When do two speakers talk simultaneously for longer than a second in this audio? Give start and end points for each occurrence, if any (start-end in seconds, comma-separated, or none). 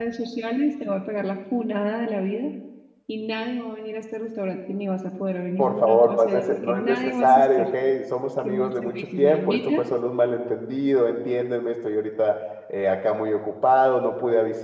5.6-7.7, 8.4-9.8